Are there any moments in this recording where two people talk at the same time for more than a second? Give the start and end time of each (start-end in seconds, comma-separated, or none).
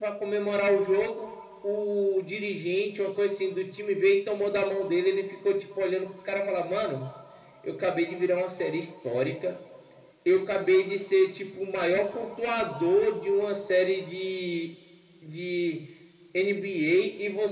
none